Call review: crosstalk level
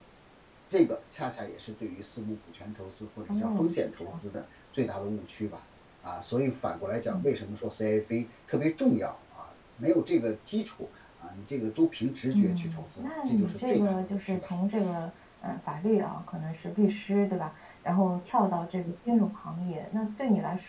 present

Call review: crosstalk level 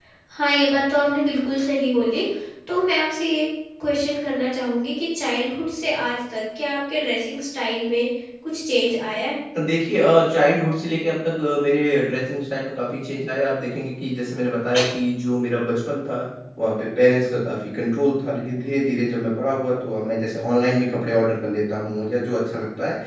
none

